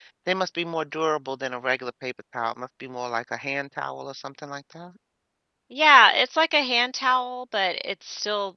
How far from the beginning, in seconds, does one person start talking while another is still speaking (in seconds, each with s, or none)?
none